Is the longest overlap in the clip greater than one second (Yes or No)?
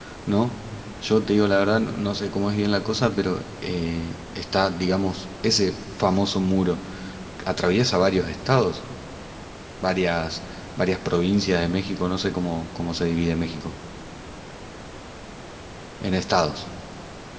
No